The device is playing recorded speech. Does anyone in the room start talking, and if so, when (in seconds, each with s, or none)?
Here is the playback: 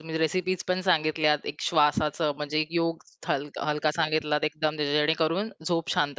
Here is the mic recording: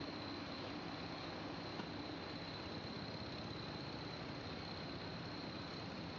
none